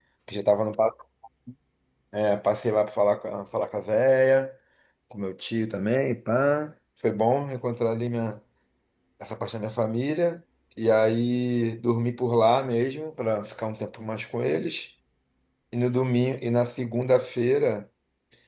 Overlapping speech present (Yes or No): No